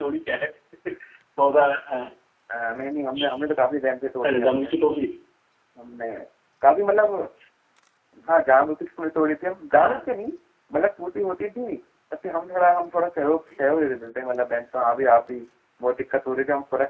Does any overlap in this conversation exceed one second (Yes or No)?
No